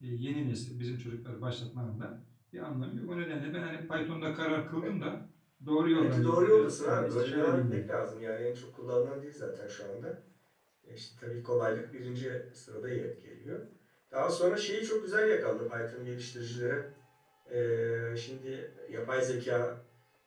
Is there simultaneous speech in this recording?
Yes, from 5.9 s

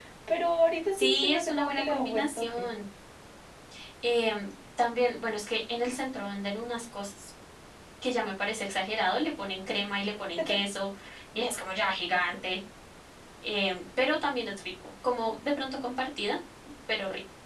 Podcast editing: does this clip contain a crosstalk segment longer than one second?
Yes, from 0.9 s

